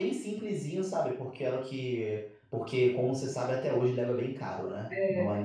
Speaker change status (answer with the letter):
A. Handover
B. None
B